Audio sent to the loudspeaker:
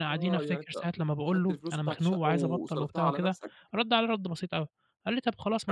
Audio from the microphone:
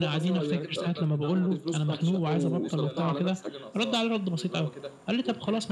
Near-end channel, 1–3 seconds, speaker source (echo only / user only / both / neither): both